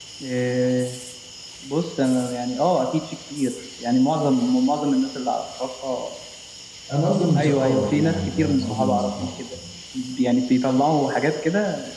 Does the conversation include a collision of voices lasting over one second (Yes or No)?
Yes